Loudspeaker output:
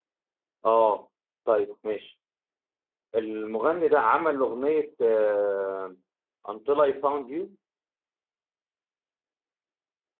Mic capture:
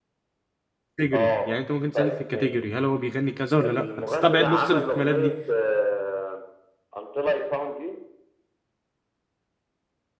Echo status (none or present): present